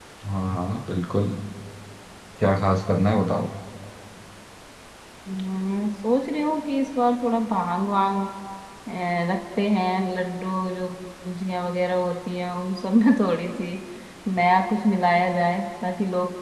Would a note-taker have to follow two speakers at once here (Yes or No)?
No